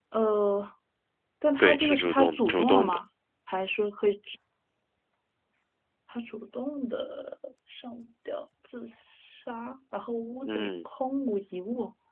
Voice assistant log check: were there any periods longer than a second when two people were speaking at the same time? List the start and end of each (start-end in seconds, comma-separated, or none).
1.6-3.0